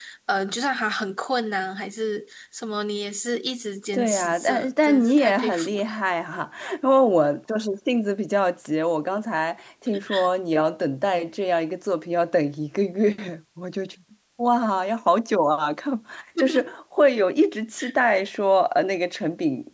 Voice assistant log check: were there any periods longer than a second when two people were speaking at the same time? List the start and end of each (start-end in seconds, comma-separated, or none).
3.9-6.0